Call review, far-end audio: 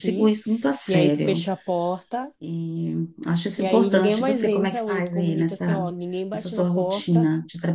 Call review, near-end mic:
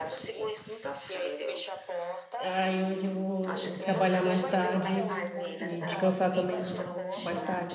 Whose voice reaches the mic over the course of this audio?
both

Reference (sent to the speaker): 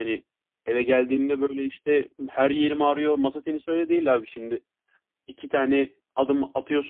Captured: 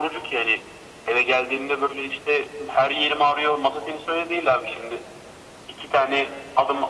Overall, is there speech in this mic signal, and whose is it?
echo only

